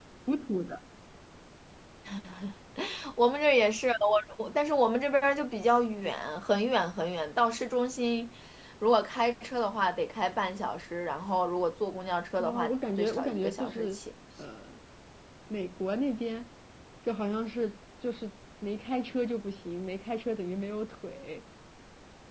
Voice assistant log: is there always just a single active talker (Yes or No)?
No